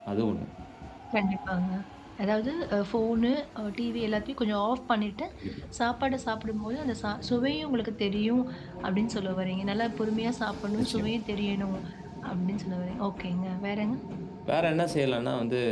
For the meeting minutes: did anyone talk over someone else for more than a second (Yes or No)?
No